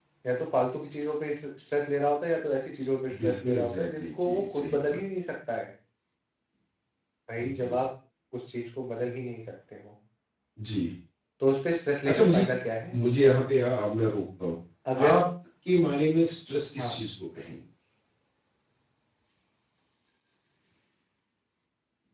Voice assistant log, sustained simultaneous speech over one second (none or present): present